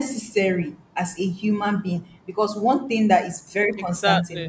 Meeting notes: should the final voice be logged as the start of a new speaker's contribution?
No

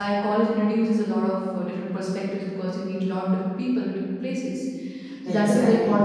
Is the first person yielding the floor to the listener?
No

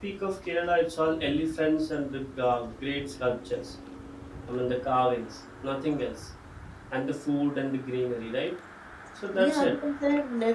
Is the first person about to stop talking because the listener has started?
Yes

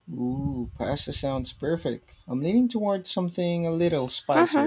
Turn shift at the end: Yes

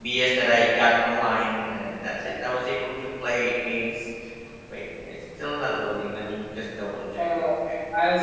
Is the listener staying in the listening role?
No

